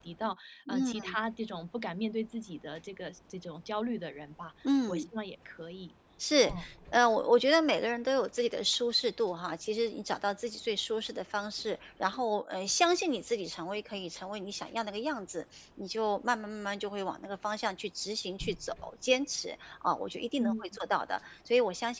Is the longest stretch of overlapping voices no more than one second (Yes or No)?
Yes